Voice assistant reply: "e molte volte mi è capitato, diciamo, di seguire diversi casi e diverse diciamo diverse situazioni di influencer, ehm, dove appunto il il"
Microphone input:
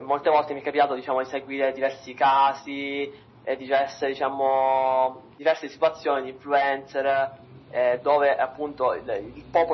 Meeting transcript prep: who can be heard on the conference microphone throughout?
echo only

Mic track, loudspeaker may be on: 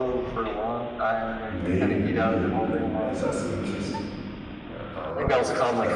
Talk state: both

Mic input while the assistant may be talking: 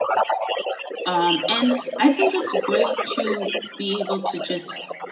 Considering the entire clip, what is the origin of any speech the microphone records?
both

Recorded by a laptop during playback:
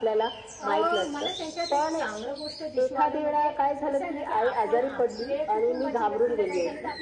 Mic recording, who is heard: both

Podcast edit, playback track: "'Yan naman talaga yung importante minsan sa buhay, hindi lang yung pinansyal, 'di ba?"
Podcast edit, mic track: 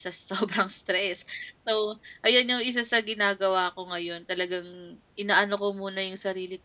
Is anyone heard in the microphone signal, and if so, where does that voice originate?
user only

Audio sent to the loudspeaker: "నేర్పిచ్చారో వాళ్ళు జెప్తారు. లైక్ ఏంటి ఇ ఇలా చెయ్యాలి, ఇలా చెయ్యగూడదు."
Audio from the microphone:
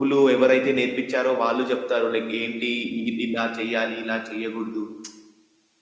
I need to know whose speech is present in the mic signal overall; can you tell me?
echo only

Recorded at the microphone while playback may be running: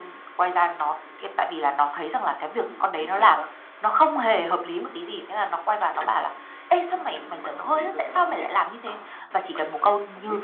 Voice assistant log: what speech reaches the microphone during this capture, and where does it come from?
echo only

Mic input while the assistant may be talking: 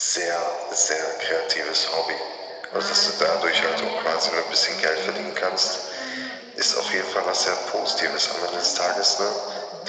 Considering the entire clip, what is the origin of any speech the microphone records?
both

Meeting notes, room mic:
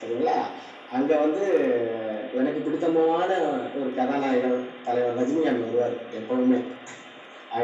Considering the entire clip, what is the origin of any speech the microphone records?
echo only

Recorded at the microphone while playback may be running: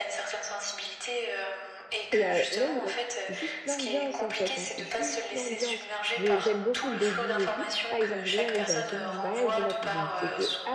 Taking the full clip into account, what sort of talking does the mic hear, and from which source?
both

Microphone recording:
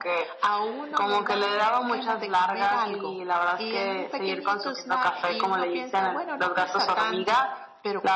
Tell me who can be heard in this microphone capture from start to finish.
echo only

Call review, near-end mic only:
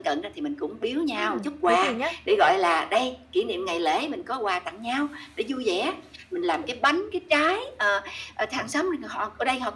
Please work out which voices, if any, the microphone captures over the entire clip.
both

